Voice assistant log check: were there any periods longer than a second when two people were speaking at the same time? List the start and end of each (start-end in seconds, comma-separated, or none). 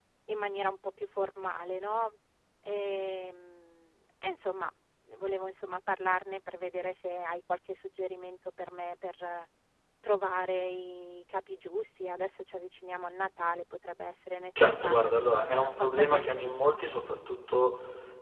14.6-16.5